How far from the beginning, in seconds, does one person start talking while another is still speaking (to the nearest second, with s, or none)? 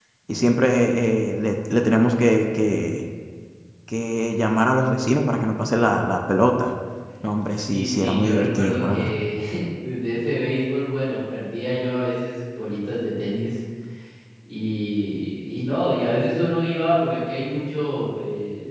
8 s